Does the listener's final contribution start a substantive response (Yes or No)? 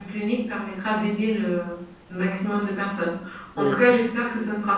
No